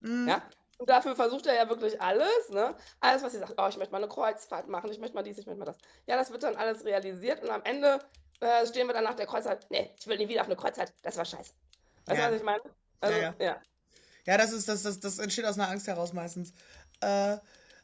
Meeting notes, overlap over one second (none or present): none